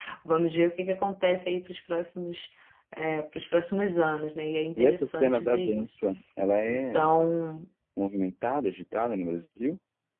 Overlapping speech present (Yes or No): Yes